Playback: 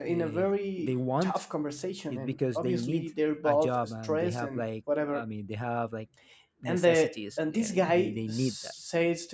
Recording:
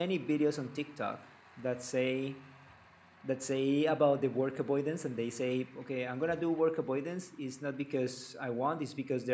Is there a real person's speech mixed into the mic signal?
Yes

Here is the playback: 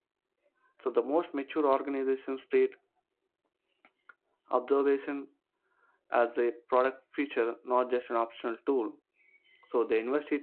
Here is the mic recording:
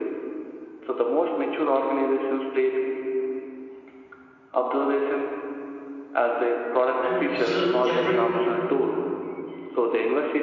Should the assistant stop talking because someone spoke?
Yes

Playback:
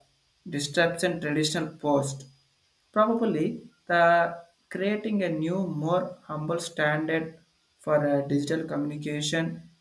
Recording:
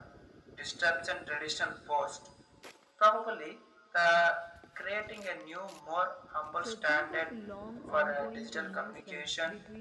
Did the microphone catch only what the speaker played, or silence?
No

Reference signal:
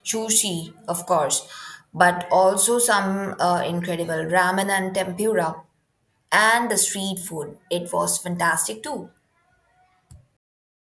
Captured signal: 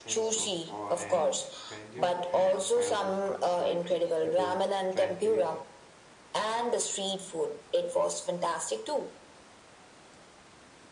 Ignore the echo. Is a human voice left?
Yes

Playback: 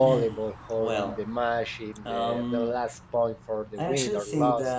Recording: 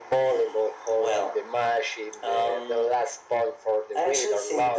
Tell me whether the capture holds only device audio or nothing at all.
Yes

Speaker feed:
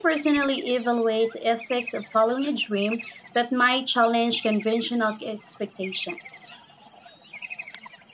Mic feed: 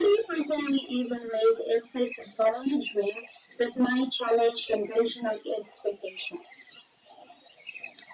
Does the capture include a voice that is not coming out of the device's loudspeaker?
No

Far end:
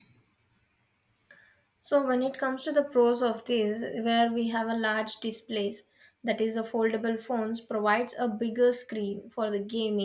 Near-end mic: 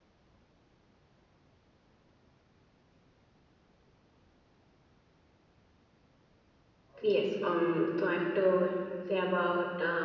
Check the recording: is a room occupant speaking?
Yes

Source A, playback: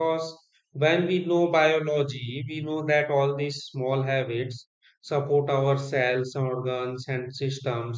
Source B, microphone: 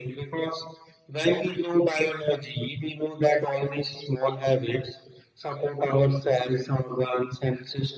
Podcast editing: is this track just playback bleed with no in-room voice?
Yes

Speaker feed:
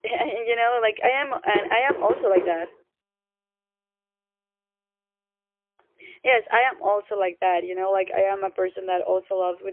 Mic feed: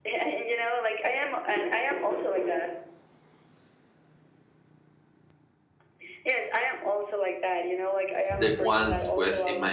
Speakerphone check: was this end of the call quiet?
No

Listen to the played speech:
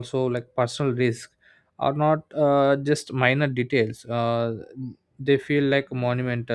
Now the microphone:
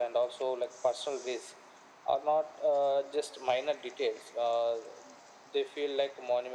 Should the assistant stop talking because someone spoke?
No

